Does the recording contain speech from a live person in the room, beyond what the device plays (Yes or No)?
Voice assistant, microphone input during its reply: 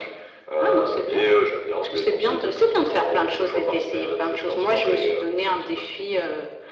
No